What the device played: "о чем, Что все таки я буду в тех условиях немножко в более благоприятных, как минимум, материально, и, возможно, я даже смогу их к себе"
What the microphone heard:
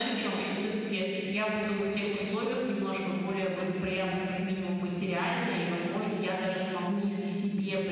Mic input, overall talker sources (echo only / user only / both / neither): echo only